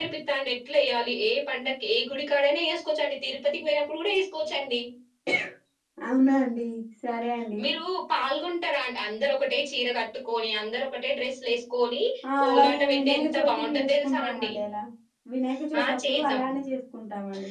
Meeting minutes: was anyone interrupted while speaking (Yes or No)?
Yes